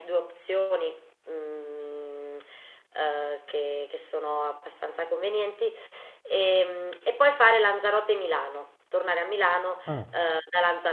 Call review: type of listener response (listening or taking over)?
listening